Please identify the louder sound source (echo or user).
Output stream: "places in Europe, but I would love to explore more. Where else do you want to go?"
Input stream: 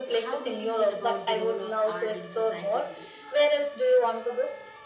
echo